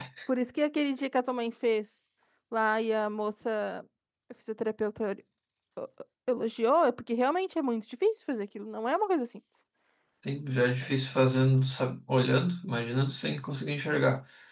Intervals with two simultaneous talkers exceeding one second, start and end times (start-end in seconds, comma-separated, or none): none